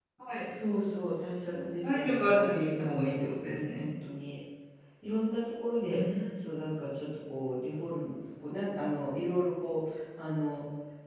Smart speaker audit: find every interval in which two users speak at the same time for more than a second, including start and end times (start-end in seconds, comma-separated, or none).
1.8-3.9